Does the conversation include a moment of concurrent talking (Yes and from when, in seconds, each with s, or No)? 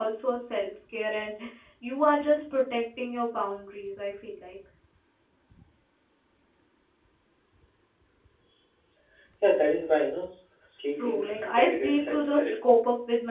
Yes, from 11.0 s